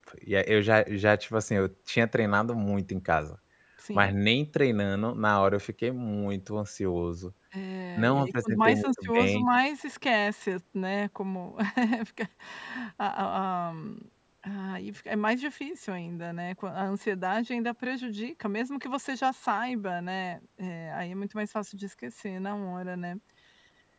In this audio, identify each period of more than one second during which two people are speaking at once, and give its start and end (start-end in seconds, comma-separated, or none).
8.0-9.4